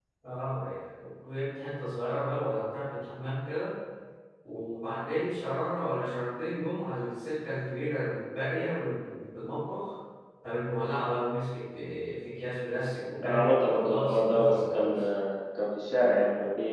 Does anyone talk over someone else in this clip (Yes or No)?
Yes